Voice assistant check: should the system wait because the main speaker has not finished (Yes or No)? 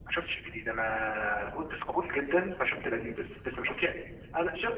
No